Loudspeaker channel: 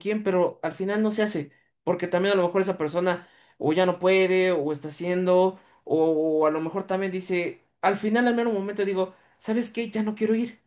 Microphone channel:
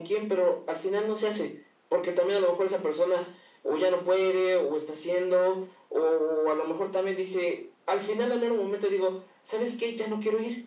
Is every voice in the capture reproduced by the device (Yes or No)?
Yes